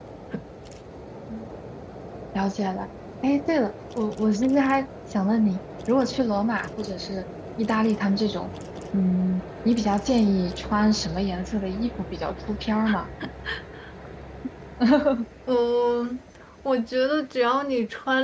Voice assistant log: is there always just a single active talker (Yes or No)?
Yes